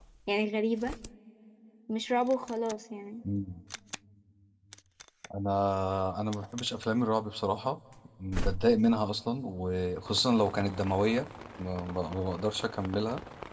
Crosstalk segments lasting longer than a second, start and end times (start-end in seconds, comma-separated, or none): none